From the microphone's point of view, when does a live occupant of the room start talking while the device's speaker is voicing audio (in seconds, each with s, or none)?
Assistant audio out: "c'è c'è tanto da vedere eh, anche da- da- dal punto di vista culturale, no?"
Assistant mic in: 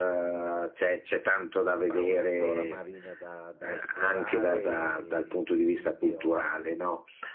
1.8 s